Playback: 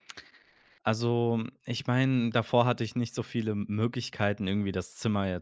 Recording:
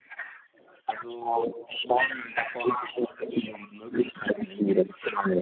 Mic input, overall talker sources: echo only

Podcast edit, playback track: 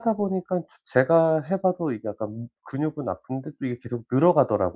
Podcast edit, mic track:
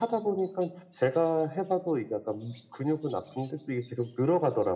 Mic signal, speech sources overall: echo only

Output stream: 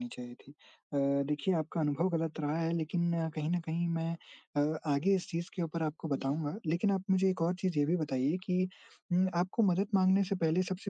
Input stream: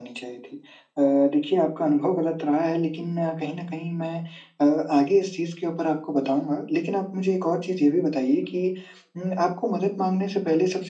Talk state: echo only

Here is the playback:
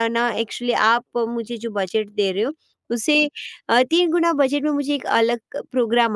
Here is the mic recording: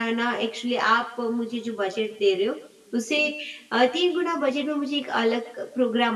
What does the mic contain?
echo only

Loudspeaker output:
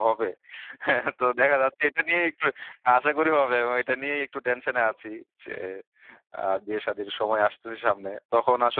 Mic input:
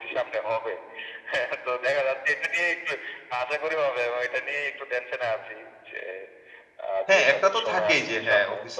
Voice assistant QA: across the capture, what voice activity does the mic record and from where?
both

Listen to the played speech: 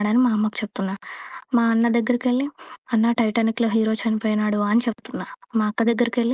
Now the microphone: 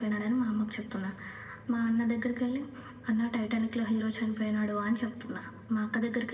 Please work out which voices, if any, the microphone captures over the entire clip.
echo only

